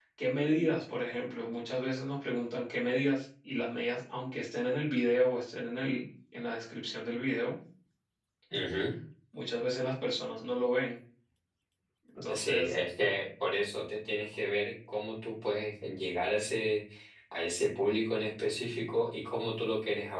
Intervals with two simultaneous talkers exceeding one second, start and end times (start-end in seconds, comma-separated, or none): none